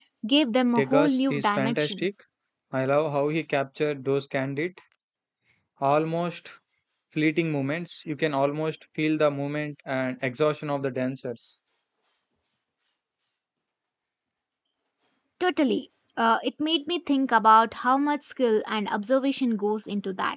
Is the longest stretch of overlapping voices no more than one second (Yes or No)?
No